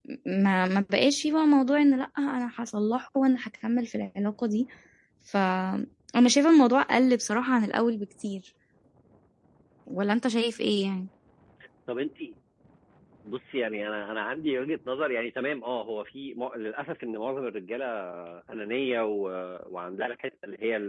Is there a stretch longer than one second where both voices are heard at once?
No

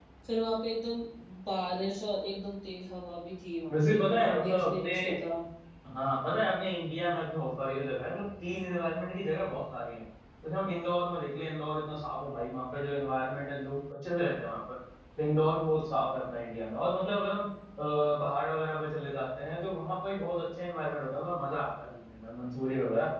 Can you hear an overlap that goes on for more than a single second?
Yes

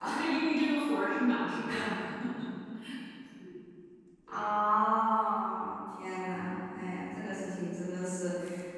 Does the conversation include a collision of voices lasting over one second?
No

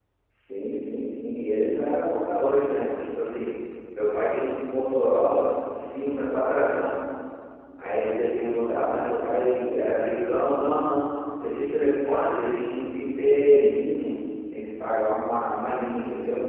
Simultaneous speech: No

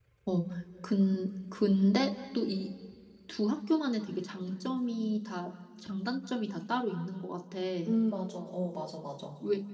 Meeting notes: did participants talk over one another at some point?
No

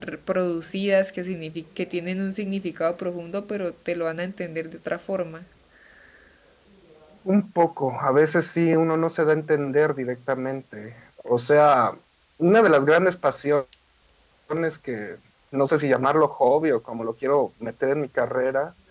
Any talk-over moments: No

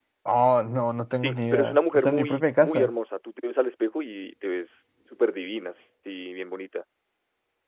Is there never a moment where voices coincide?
No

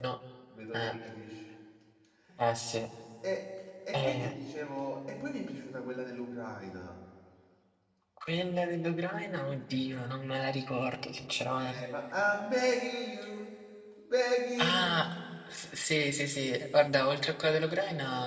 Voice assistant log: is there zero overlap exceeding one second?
Yes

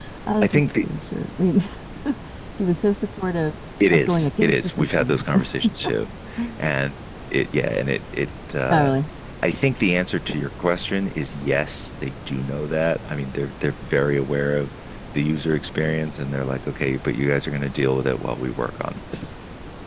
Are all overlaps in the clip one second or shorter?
No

